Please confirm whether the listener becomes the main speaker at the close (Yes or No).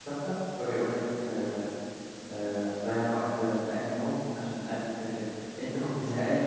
No